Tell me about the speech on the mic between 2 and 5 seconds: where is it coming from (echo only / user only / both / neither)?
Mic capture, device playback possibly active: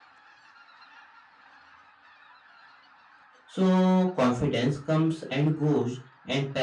user only